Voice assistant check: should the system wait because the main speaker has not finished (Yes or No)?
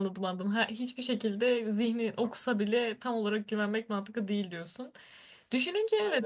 Yes